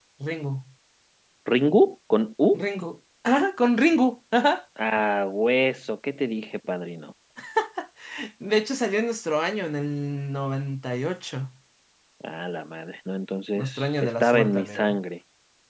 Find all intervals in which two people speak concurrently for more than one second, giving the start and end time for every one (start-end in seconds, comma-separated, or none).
13.6-15.0